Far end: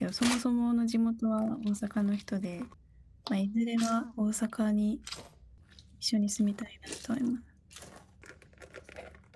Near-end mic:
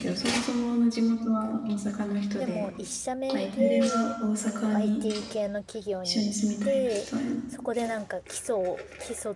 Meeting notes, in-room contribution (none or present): present